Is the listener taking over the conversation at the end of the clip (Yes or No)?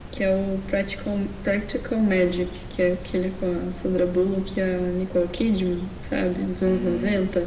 Yes